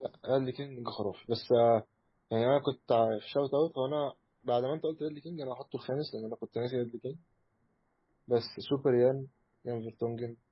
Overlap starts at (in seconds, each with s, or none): none